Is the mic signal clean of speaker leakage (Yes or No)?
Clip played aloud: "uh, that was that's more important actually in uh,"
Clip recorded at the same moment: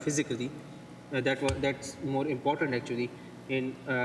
No